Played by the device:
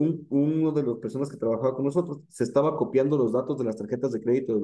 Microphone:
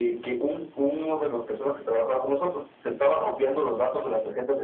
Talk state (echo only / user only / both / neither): echo only